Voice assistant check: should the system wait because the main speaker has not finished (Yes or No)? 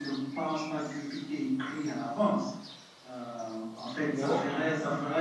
Yes